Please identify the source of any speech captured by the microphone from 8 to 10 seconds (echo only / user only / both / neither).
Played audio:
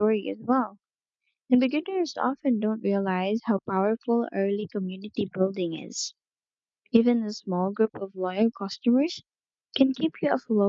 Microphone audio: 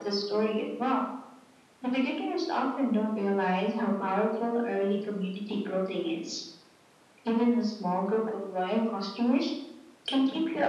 echo only